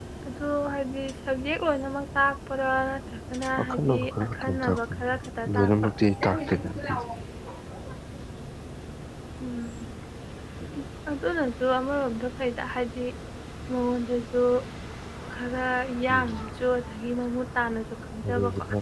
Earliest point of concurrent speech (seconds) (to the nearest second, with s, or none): 4 s